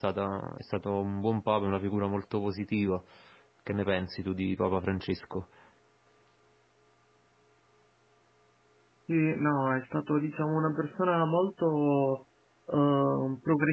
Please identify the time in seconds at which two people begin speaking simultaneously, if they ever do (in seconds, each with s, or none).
none